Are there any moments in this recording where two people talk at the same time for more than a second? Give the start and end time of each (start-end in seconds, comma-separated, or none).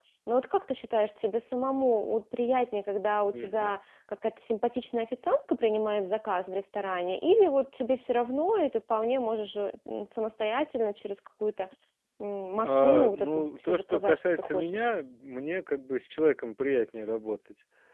12.6-14.9